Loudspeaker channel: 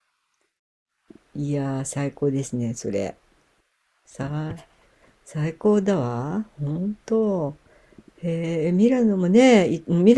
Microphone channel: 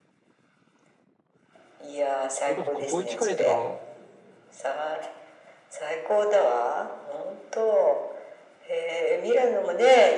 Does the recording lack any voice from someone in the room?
No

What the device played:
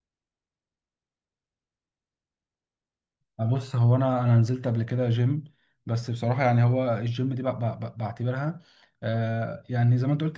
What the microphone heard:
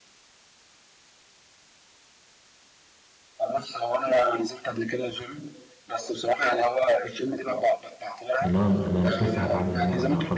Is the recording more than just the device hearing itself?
Yes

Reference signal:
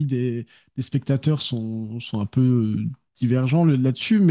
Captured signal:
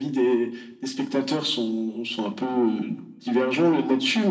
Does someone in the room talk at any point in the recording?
No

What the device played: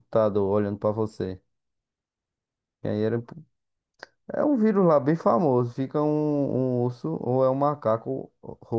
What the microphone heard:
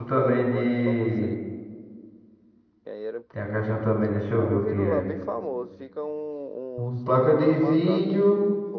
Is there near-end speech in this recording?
Yes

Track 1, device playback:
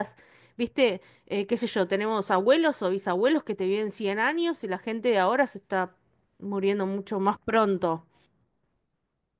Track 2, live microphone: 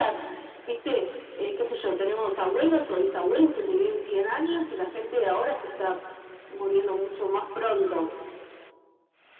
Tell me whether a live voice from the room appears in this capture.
No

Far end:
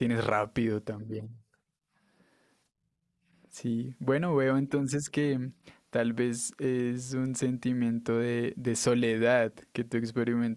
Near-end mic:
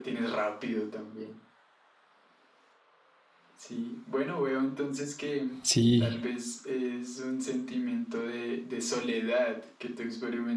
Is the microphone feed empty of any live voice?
No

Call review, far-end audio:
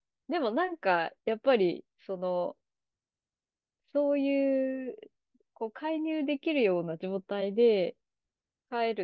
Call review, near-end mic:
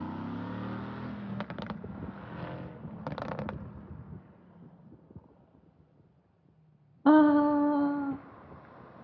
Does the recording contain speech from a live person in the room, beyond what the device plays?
Yes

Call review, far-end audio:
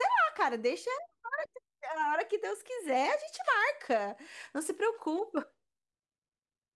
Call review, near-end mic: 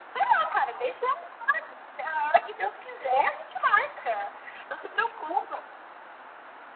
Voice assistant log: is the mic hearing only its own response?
Yes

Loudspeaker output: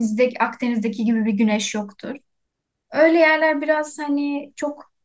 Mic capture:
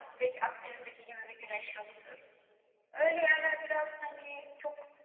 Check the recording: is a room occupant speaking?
No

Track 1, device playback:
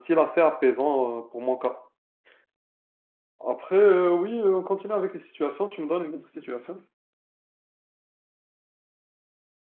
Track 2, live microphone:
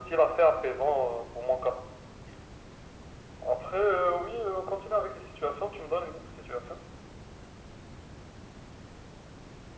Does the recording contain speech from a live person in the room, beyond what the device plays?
No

